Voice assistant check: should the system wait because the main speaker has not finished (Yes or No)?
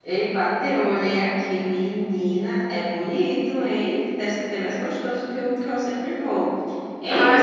No